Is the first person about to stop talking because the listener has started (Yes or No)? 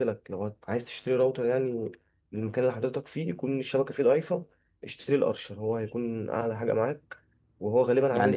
Yes